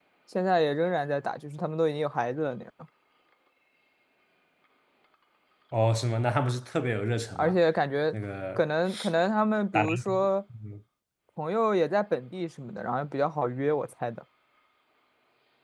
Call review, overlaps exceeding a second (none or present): none